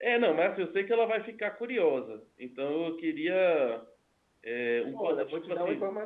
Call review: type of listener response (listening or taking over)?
taking over